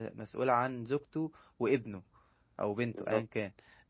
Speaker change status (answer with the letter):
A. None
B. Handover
A